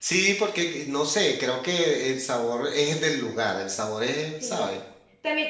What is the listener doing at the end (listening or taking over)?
taking over